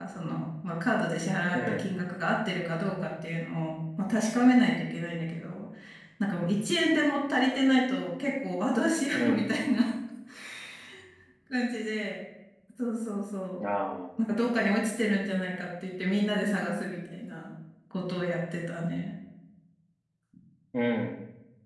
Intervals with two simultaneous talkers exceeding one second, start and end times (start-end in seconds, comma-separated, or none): none